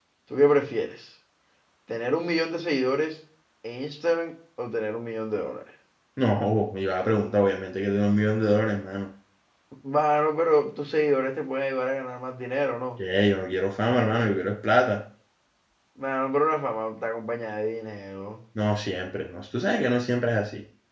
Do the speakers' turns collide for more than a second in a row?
No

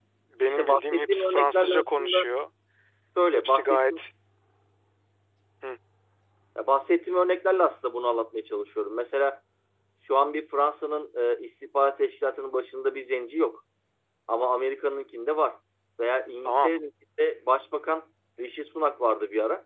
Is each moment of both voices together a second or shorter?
No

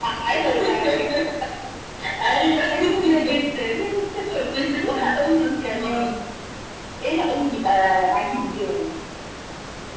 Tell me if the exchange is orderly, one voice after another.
No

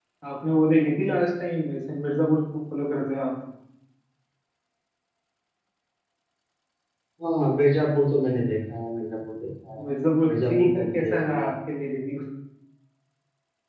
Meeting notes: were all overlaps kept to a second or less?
No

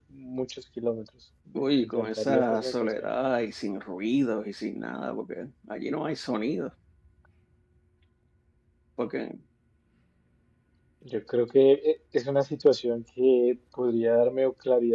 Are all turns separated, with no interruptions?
No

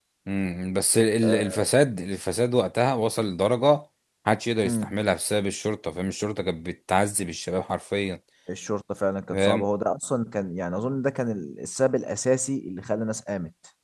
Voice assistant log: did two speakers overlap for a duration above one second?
No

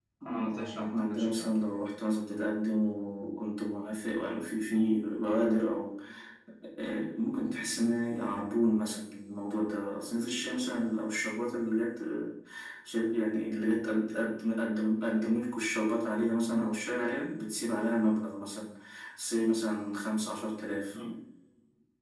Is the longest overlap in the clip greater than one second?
Yes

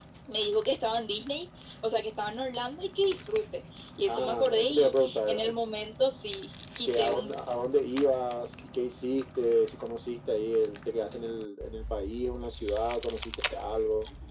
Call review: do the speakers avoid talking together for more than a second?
No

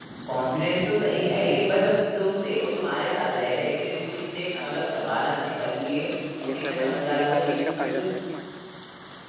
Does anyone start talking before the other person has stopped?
Yes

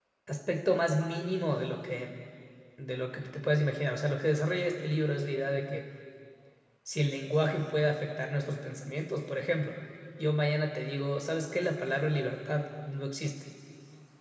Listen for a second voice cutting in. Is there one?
No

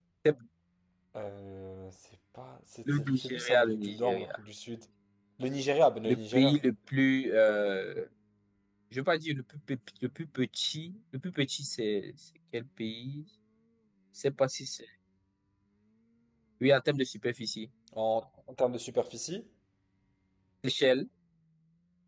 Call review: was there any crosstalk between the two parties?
Yes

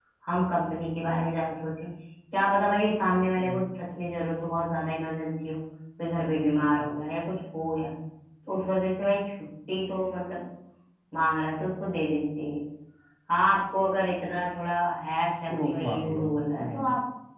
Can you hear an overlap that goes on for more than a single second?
Yes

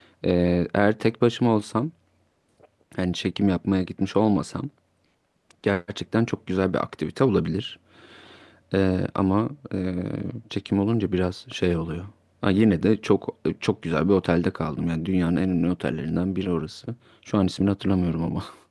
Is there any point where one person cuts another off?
No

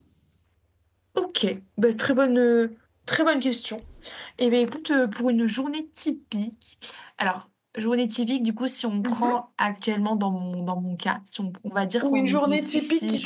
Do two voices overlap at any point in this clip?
Yes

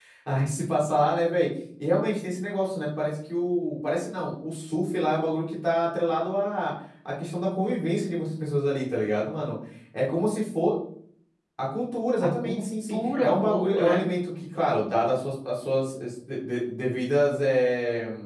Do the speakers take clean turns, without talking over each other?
No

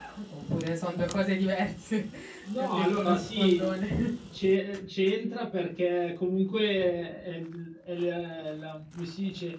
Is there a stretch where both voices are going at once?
Yes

